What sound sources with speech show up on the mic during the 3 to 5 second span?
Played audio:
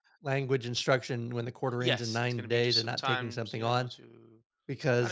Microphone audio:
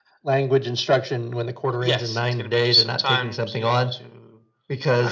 echo only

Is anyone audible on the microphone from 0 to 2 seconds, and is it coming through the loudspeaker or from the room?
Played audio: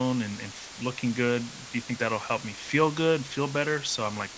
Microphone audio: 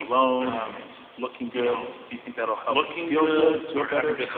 both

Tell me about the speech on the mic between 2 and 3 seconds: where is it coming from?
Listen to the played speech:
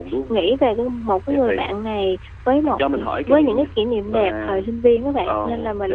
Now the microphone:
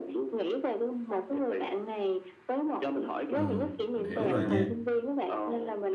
echo only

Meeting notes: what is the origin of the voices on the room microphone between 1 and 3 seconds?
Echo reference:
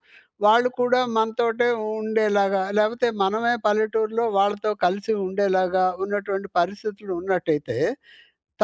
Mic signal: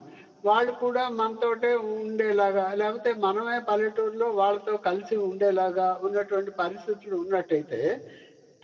echo only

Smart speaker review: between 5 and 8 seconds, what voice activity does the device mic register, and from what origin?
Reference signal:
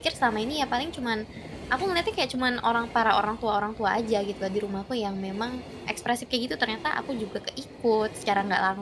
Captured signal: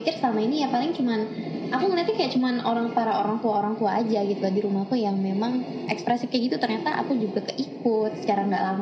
echo only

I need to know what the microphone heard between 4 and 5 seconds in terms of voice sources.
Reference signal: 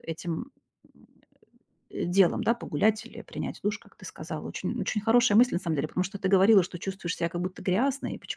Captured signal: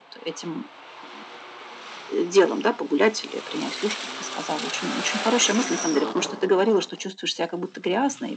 echo only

